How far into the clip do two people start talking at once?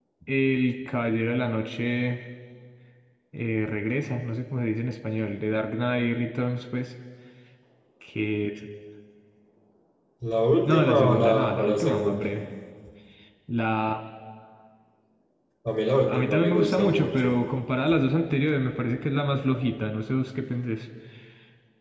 10.6 s

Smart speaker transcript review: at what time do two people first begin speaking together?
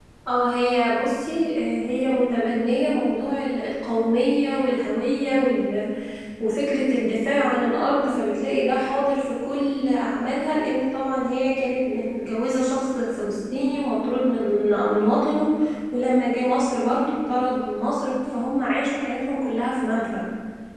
none

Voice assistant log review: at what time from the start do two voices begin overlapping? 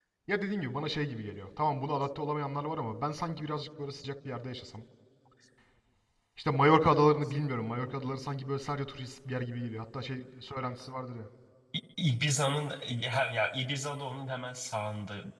none

